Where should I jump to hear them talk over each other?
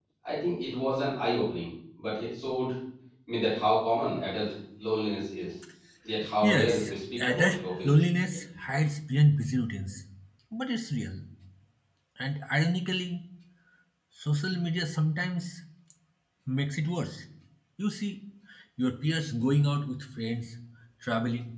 6 s

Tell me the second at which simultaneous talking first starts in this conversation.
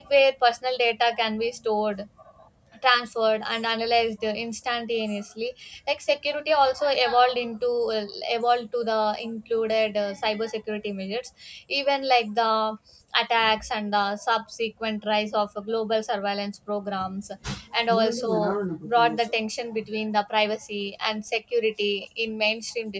none

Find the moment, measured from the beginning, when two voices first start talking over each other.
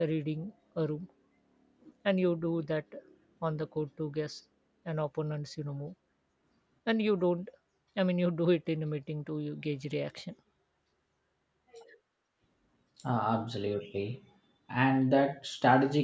none

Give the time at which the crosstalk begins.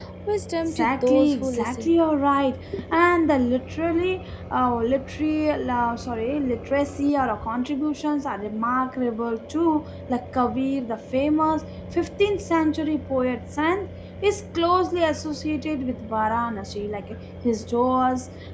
1 s

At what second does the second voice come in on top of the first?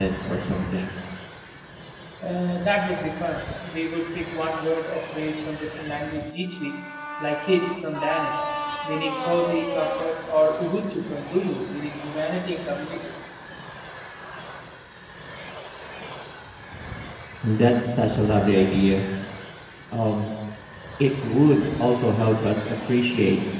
none

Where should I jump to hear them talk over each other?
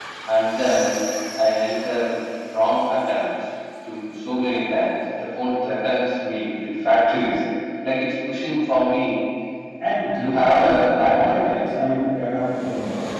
10 s

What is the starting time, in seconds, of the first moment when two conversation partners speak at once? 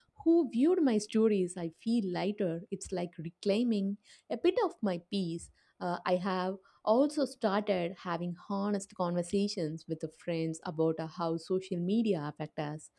none

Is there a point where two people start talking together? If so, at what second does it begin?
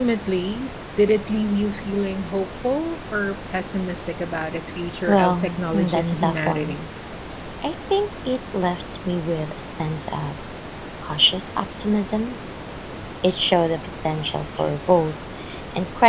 5 s

